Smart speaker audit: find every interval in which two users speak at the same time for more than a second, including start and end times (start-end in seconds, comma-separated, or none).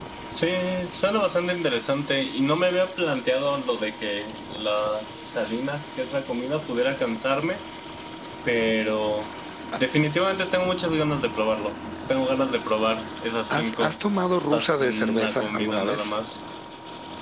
14.5-16.1